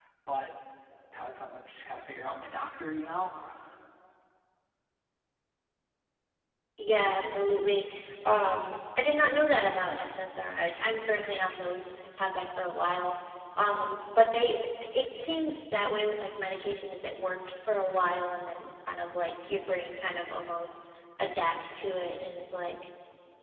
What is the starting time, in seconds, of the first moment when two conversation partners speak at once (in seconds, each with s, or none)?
none